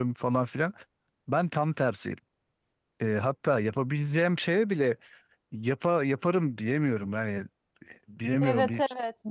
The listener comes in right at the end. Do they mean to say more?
Yes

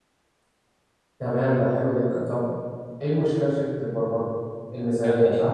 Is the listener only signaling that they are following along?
No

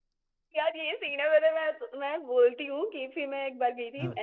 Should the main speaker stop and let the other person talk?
No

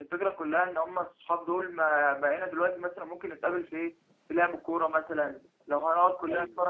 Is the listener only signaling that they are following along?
Yes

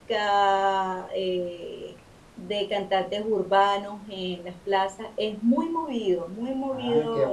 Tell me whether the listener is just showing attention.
No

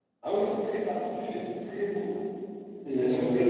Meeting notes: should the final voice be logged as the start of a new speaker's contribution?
Yes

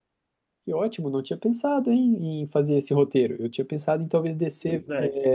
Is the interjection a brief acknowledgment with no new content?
Yes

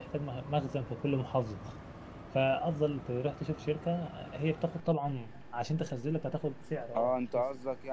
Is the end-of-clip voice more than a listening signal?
Yes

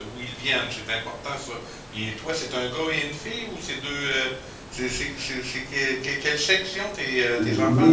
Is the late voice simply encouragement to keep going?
No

